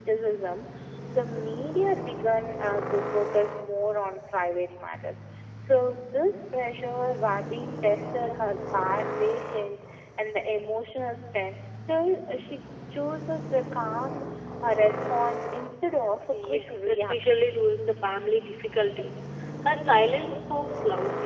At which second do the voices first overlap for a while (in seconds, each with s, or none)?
16.3 s